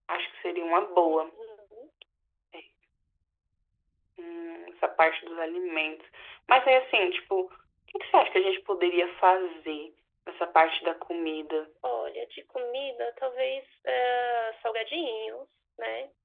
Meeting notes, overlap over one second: none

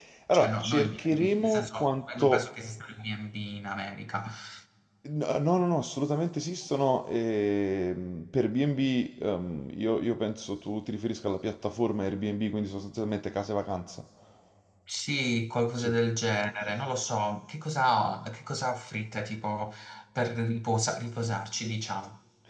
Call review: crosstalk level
present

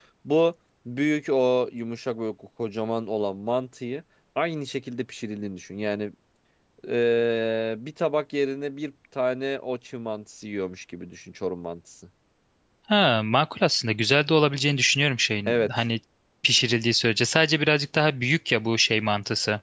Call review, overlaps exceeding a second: none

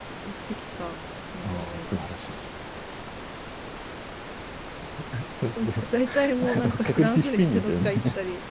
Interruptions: present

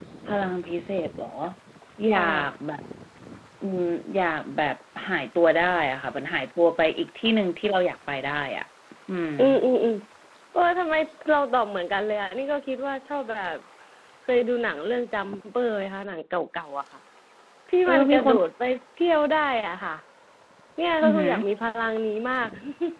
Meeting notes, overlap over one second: none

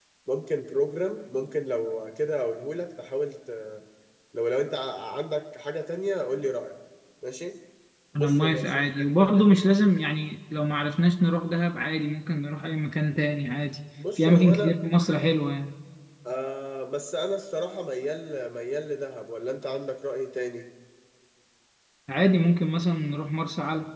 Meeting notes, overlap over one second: present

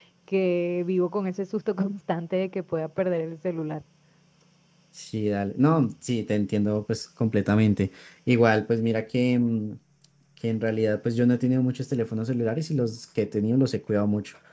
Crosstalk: none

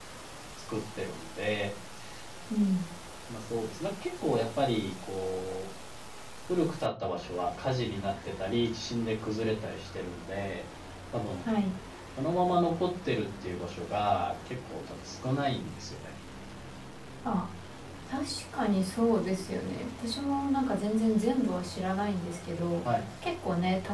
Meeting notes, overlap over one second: none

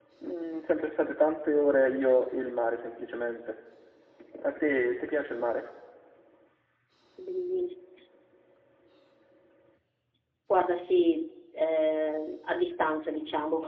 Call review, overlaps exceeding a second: none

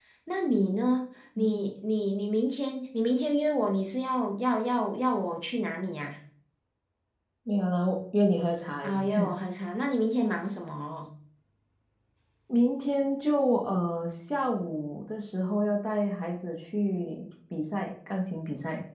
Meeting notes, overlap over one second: none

